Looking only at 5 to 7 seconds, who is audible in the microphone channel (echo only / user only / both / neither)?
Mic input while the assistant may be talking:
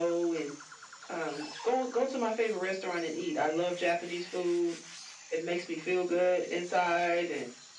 echo only